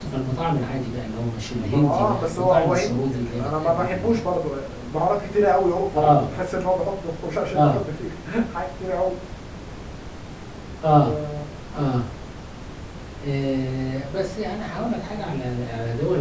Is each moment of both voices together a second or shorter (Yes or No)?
No